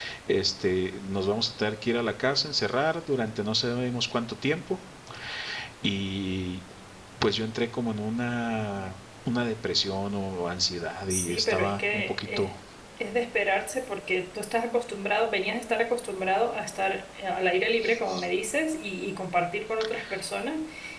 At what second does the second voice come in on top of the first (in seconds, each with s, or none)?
11.1 s